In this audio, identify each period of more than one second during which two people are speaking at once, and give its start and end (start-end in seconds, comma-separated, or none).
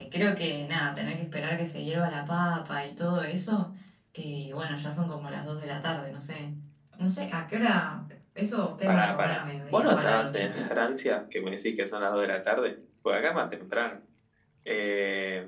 8.9-10.5